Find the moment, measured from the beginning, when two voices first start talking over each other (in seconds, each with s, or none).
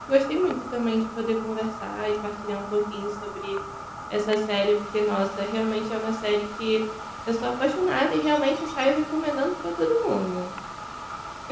none